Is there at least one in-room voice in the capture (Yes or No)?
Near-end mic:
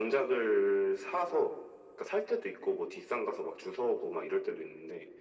No